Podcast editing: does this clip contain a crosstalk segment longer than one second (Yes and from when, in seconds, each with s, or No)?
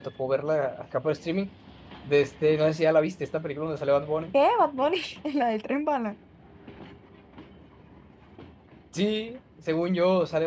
No